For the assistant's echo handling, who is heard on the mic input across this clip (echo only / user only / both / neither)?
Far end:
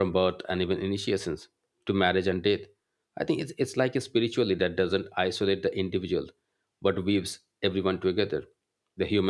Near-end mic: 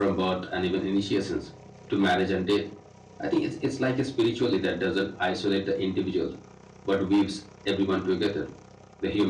echo only